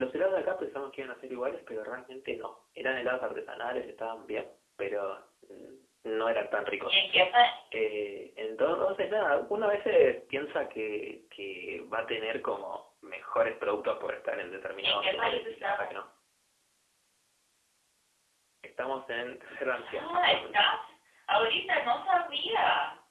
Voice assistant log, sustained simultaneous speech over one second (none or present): present